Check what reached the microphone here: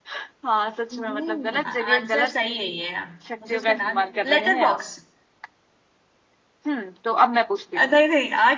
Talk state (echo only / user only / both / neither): both